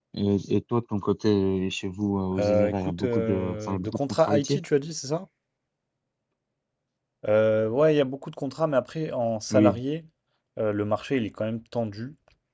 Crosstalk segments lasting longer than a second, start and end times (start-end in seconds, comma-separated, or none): 2.4-4.6